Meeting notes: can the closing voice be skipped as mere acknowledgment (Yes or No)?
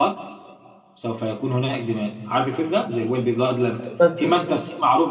Yes